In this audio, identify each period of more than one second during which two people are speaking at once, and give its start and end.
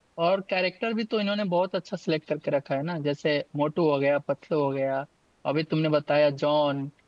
none

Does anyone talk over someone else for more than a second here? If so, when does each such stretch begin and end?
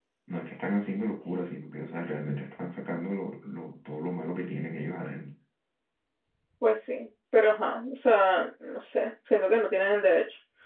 none

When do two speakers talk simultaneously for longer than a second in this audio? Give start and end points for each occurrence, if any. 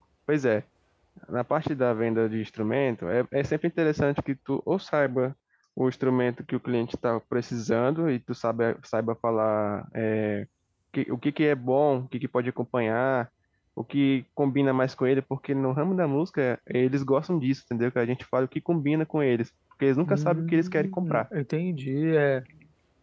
20.0-21.2

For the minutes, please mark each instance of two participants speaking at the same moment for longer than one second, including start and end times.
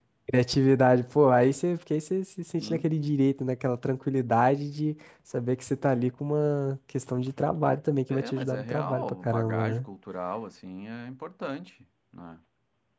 8.1-9.8

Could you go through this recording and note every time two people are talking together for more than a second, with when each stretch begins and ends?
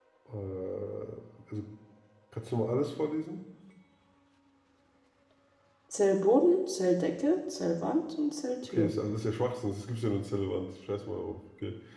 none

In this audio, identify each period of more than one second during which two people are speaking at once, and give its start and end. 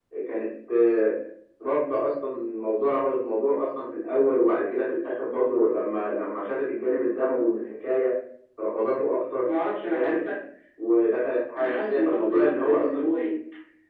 11.6-13.3

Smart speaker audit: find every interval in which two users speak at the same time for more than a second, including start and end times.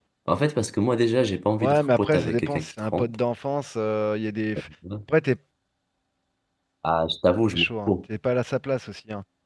1.6-3.2

